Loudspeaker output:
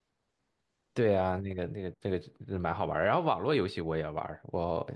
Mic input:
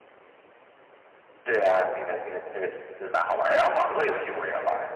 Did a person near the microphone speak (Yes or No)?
No